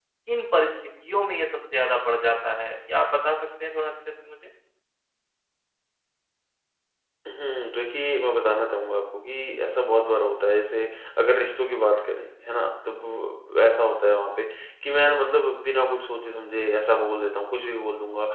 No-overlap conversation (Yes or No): Yes